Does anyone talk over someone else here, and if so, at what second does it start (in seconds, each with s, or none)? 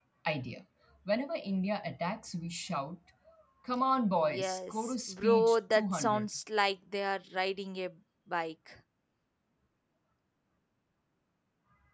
4.2 s